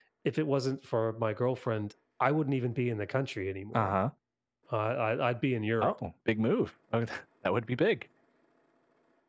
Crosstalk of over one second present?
No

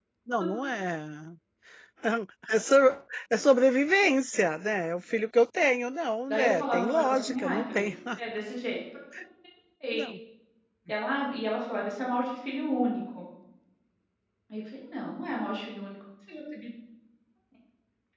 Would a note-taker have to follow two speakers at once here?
Yes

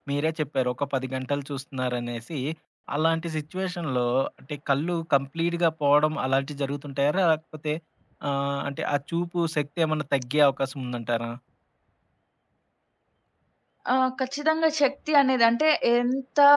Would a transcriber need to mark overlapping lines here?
No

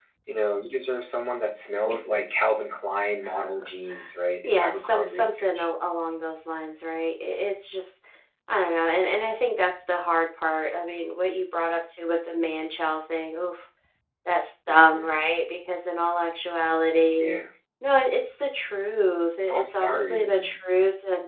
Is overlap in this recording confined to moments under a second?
No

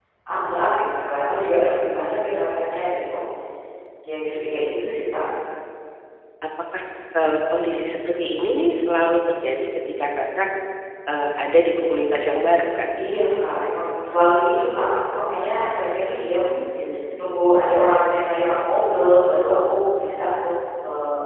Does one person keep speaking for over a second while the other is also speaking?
No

